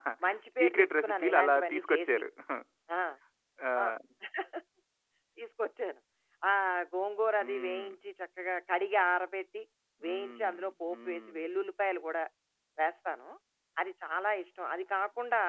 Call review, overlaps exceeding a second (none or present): present